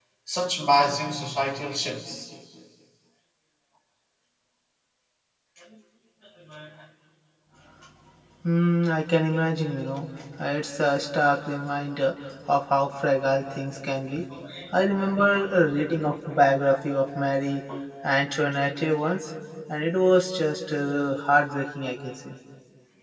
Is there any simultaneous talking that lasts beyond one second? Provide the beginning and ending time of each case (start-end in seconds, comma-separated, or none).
none